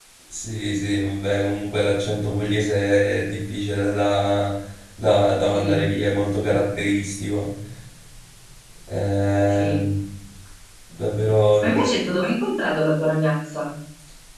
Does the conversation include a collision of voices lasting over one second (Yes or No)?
No